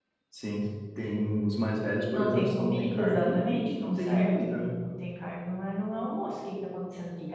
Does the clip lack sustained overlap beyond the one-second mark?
No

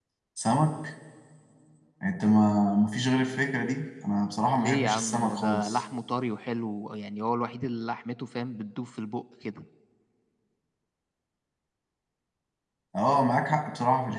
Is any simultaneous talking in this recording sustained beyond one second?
Yes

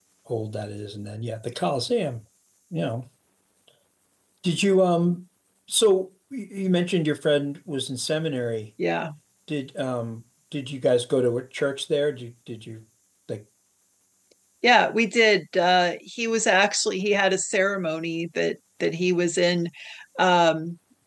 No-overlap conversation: Yes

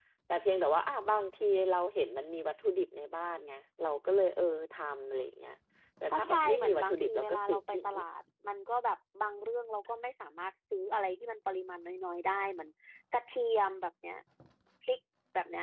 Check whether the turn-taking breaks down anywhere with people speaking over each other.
Yes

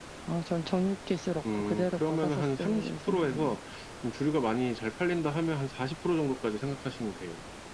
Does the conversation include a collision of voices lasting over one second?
Yes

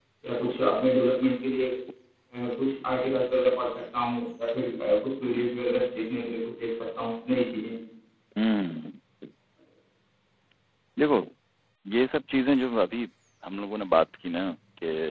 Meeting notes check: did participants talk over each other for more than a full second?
No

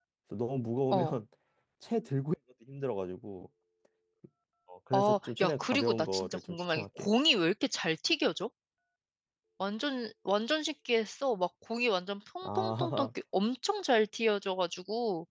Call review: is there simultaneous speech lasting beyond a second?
Yes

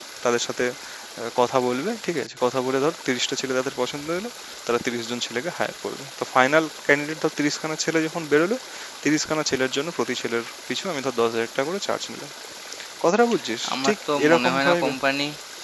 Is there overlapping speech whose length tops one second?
Yes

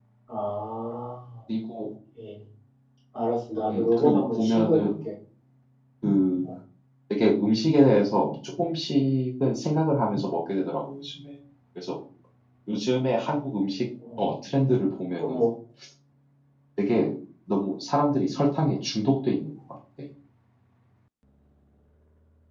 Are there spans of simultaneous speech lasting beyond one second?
Yes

